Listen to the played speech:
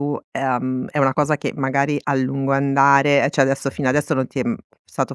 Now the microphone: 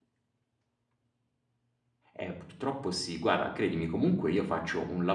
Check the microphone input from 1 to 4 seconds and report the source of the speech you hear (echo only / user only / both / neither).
user only